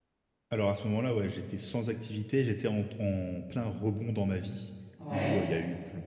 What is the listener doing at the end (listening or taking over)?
listening